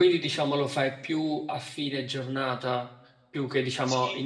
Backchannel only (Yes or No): No